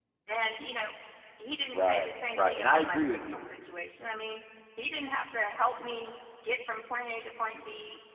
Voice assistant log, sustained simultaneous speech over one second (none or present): present